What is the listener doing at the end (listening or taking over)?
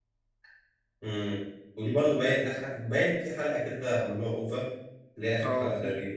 taking over